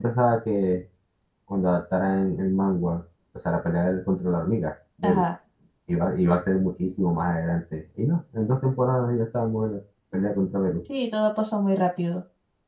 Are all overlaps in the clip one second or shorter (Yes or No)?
Yes